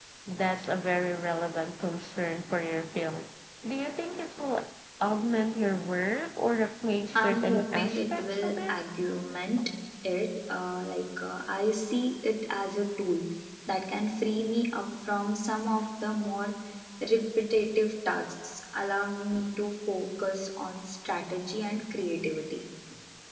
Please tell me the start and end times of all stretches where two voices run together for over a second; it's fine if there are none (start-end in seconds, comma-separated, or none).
7.2-8.8